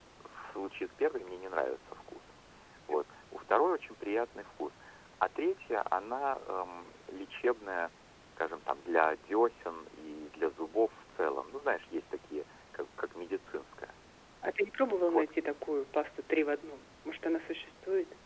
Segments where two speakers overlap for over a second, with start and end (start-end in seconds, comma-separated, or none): none